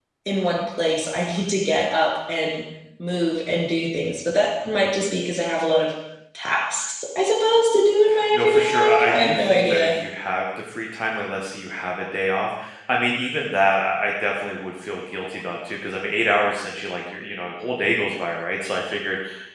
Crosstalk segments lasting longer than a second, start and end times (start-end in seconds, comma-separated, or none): 8.3-9.9